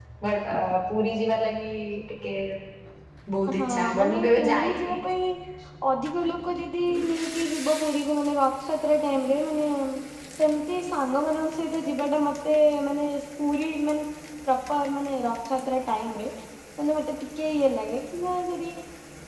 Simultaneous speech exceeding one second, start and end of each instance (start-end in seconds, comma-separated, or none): 3.6-5.0